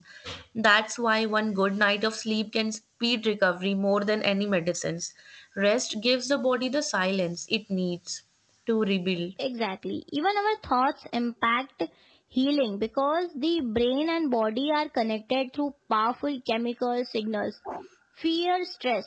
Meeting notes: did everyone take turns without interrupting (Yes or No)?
Yes